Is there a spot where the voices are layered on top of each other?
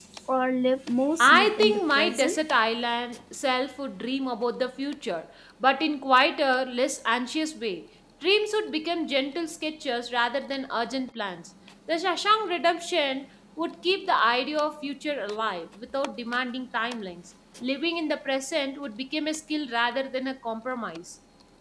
Yes, from 1.2 s

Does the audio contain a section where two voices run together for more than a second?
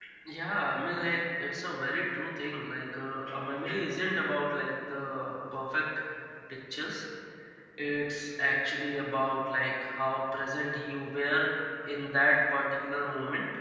No

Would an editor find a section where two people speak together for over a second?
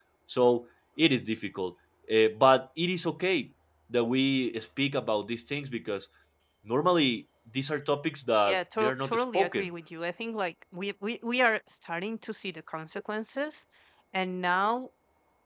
Yes, from 8.4 s

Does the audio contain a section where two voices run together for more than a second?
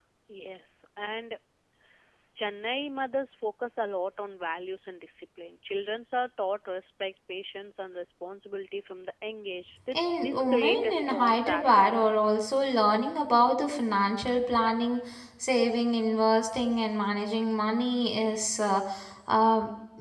Yes, from 9.9 s

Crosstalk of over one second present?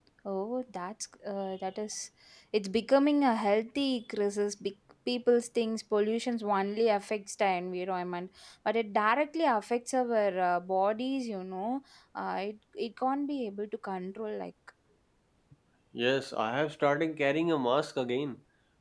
No

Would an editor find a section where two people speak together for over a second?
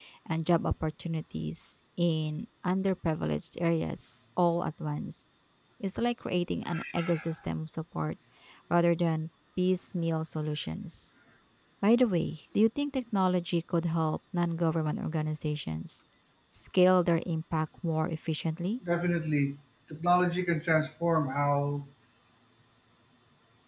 No

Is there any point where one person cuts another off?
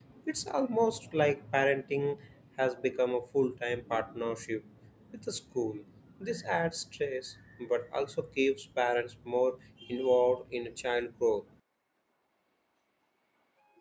No

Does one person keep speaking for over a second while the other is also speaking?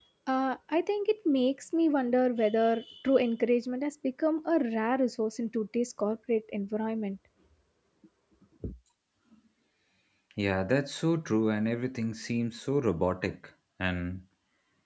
No

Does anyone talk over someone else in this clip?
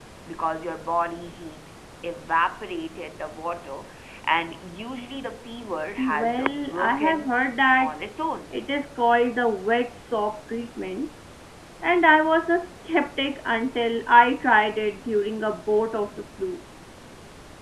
Yes, from 6.0 s

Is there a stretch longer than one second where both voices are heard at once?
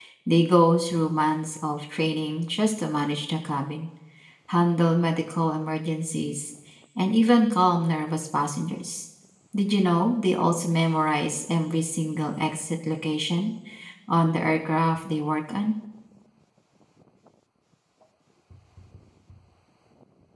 No

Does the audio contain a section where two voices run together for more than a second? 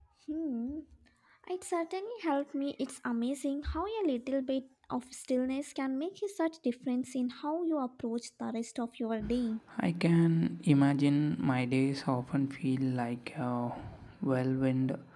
No

